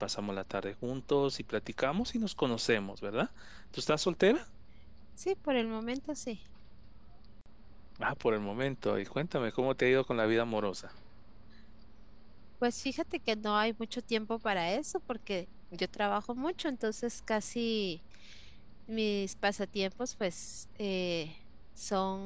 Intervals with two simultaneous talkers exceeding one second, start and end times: none

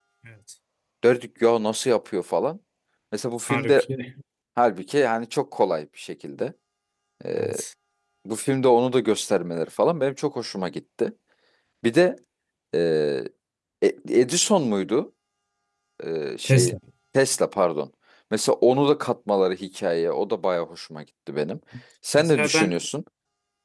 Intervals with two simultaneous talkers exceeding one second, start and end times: none

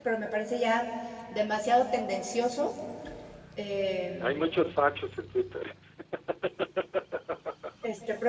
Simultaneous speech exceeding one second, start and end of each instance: none

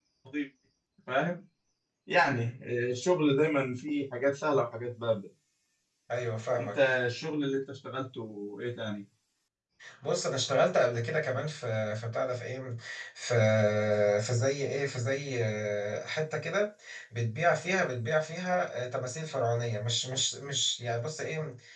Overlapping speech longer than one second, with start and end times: none

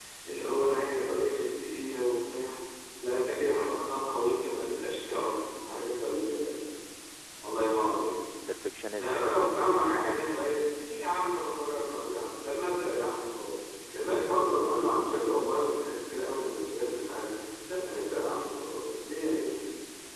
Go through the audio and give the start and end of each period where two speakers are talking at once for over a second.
none

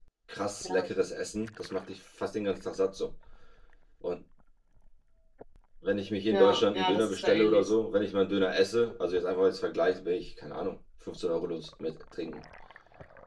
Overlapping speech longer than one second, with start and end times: 6.3-7.7

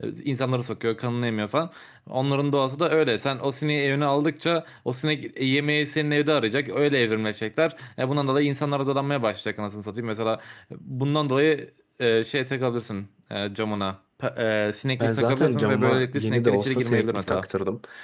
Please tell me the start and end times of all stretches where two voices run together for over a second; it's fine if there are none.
15.0-17.5

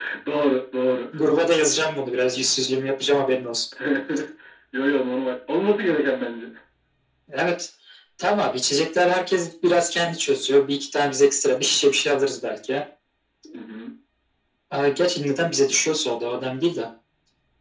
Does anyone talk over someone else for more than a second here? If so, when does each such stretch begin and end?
none

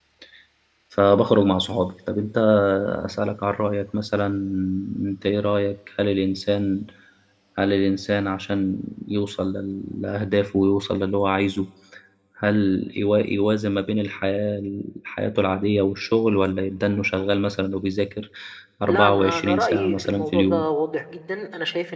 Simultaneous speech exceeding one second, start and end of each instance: 18.9-20.6

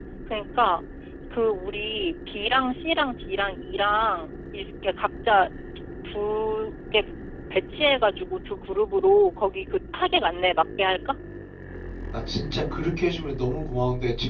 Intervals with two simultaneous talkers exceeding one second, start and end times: none

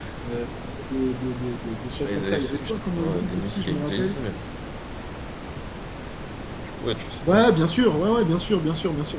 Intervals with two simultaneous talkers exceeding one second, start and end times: 2.0-4.2

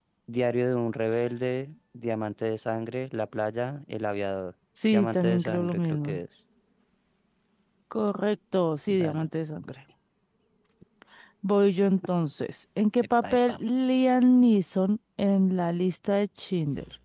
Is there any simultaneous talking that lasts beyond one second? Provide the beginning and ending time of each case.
4.9-6.2

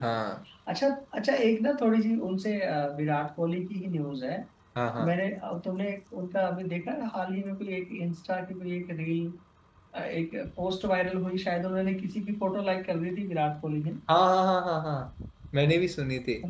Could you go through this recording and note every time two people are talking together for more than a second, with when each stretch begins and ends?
none

